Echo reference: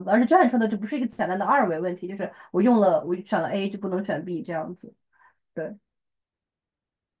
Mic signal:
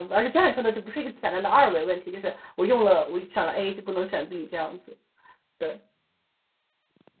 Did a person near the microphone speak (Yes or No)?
No